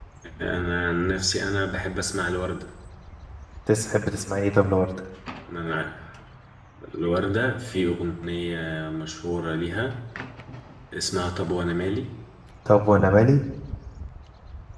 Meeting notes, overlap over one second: none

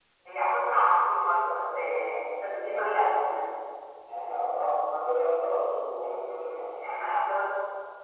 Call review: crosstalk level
present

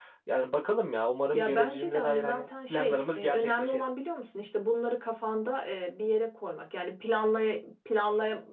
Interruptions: present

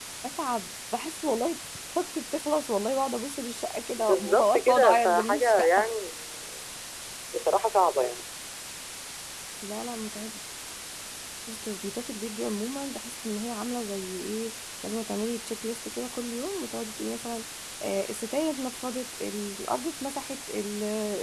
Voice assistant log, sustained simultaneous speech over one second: present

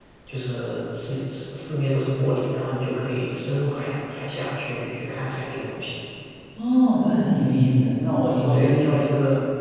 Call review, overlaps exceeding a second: none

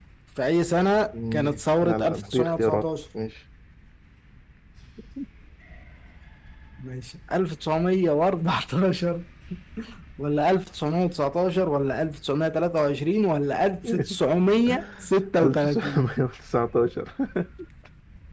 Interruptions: present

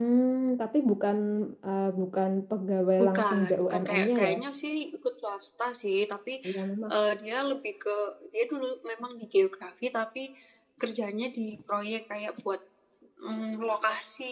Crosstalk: present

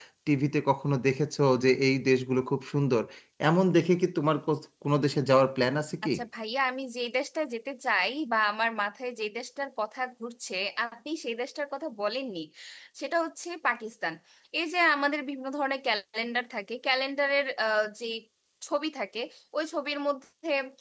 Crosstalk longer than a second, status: none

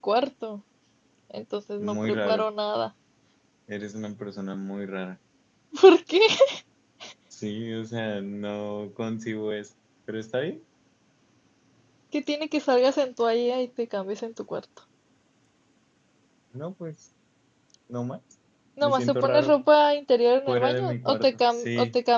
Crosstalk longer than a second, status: present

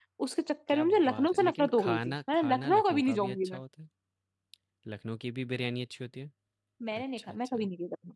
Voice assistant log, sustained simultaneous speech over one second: present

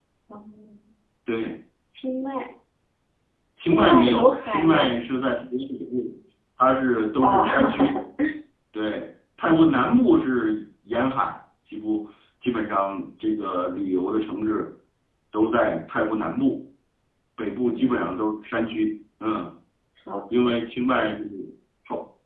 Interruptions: present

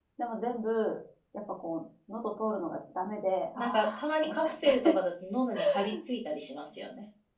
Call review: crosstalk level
present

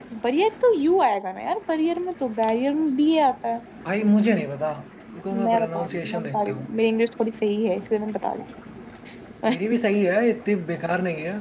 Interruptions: present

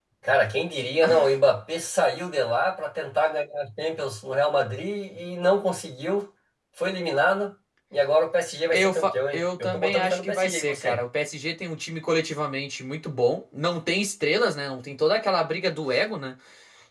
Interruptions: present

